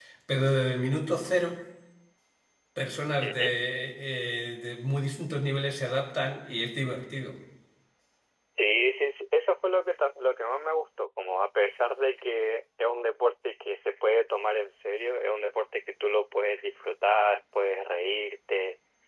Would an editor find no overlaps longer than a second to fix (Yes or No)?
Yes